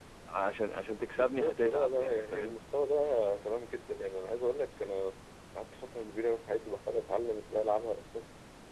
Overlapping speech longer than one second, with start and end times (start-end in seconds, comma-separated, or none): 1.1-2.6